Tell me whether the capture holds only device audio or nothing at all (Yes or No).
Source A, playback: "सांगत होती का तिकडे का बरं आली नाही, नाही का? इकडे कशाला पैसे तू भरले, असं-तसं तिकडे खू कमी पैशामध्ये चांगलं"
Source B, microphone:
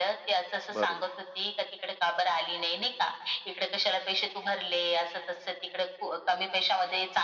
No